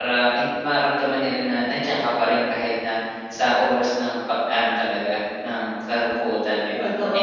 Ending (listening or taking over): taking over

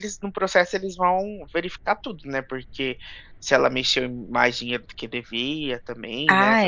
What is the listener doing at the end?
taking over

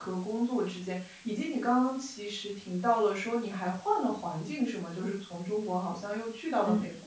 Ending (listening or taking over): taking over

